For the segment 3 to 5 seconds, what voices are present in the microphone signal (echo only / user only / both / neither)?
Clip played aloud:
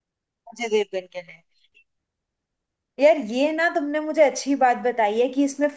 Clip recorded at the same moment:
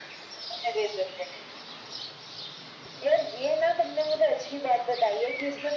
echo only